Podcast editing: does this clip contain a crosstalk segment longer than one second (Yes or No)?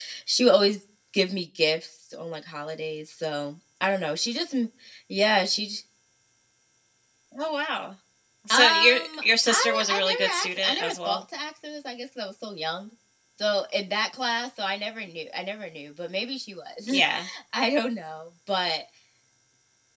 Yes